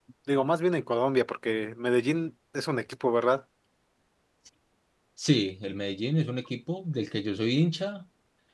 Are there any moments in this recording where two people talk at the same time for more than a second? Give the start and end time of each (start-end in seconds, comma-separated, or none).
none